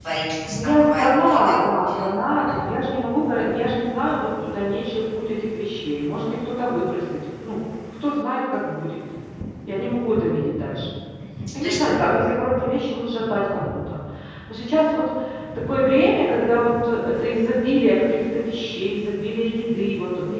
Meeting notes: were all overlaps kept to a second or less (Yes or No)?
No